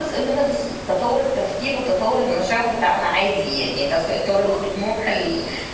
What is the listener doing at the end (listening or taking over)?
listening